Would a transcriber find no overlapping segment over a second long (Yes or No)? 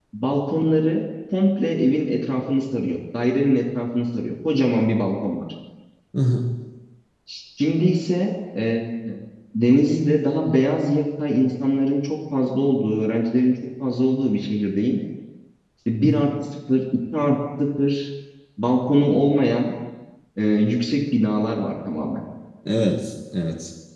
Yes